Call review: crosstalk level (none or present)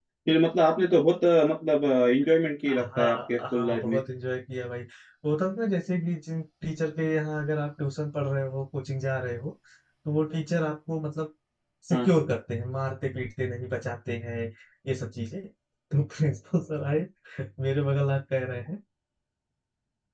present